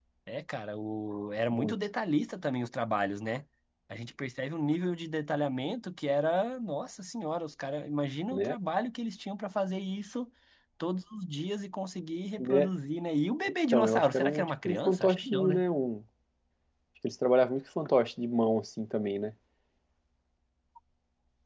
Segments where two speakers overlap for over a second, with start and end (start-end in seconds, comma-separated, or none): 13.7-15.6